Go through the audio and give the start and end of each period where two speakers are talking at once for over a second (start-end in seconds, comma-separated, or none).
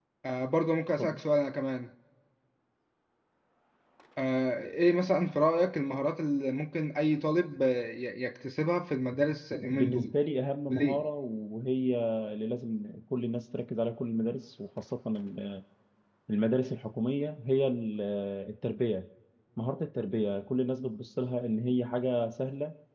none